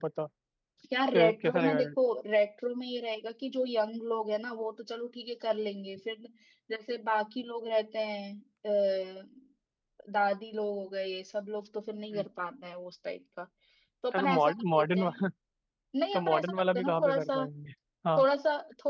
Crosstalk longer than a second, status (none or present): present